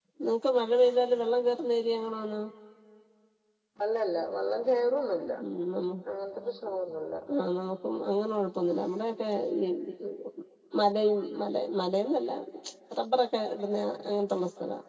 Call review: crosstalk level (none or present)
none